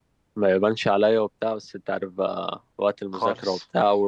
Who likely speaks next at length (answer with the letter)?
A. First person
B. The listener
A